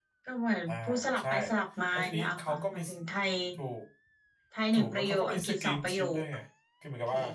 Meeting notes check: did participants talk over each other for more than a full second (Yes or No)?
Yes